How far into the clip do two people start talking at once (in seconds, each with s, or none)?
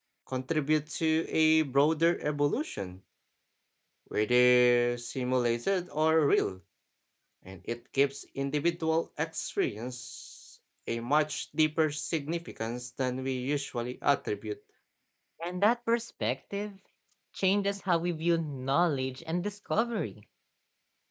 none